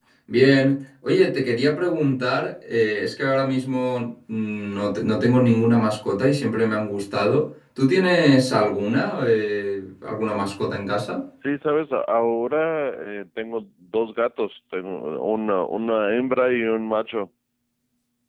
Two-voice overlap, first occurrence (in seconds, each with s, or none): none